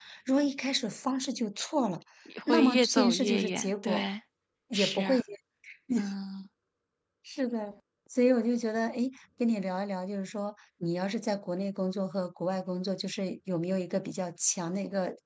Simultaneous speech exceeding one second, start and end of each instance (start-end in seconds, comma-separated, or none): 2.5-4.1